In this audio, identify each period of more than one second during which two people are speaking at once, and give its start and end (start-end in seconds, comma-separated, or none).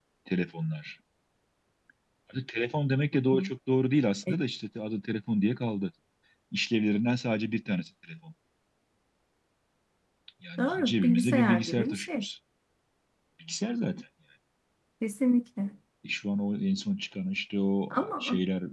10.6-12.2